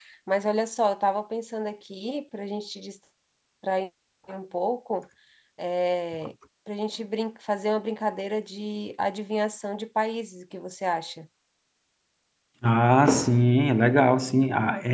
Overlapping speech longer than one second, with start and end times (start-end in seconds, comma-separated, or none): none